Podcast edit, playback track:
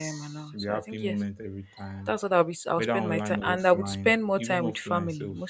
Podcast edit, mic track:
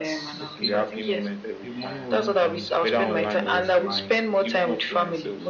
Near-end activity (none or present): present